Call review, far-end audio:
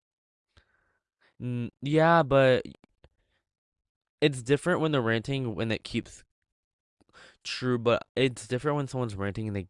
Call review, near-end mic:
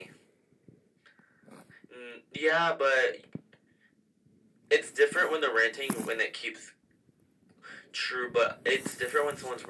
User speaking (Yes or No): No